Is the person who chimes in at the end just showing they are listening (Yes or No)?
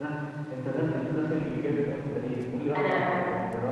Yes